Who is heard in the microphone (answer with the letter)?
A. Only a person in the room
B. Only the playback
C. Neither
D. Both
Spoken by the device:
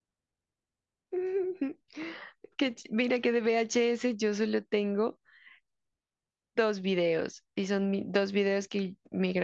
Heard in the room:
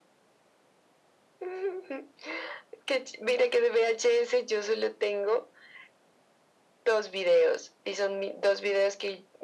B